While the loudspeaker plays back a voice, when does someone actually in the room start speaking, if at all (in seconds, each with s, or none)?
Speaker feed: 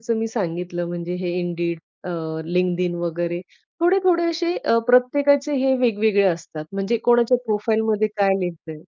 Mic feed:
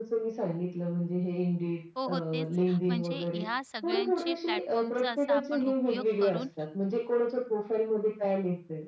1.9 s